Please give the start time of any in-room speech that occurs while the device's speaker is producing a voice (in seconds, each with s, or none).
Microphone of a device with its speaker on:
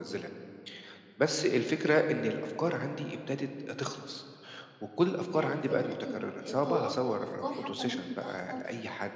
5.3 s